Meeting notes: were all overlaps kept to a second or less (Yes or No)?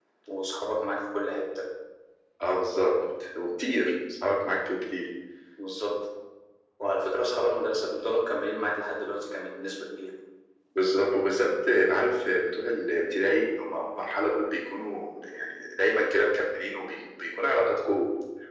Yes